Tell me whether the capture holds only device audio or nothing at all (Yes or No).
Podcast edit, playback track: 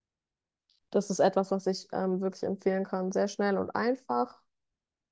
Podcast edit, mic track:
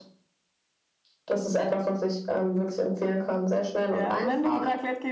No